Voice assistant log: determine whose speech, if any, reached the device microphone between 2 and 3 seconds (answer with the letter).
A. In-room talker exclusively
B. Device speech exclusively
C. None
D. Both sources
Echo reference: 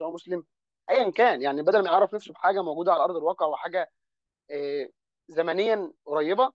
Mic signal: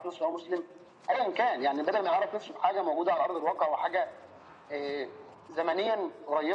B